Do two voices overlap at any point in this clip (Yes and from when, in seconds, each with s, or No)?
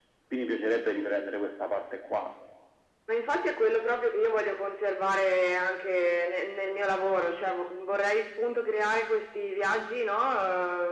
No